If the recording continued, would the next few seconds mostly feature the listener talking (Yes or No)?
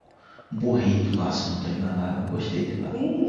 Yes